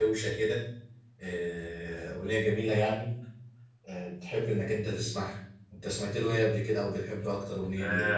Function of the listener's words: taking over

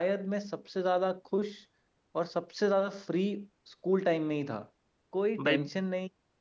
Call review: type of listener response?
listening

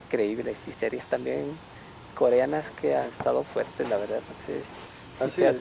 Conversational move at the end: listening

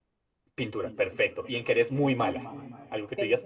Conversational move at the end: listening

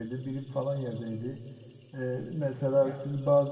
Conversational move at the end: listening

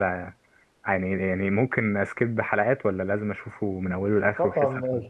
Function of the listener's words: taking over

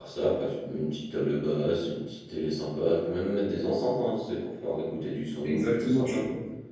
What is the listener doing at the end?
taking over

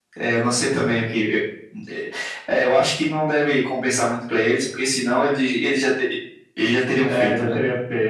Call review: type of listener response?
taking over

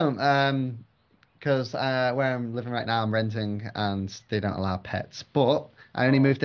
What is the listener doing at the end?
listening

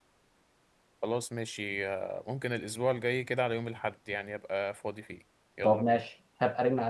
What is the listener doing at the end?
taking over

